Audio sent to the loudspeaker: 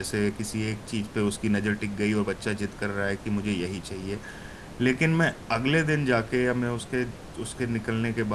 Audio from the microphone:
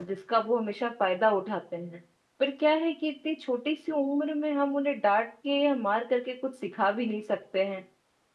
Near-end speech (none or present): present